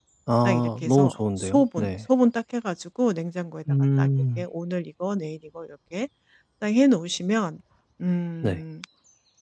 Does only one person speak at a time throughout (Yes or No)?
No